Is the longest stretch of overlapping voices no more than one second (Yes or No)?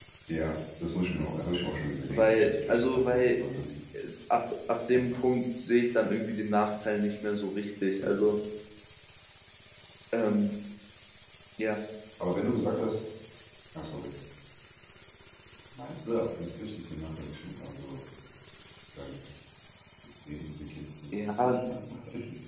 No